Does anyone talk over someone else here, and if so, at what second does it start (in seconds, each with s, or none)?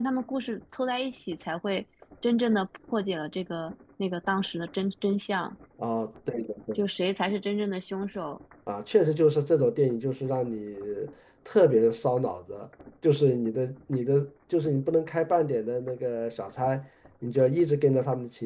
none